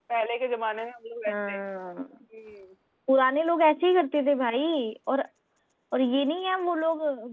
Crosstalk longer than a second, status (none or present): none